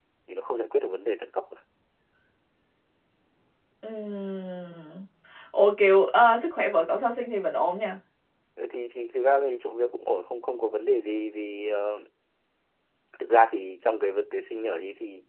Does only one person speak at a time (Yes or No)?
Yes